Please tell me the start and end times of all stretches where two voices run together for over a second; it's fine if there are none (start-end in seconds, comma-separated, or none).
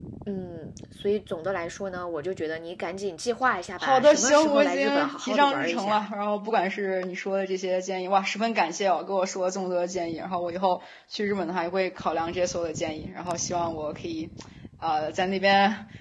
3.8-6.0